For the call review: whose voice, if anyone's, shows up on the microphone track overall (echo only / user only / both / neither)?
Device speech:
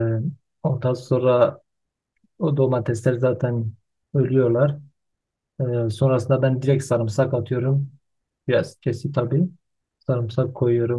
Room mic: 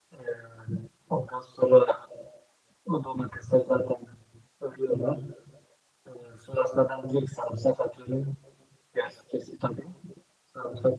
echo only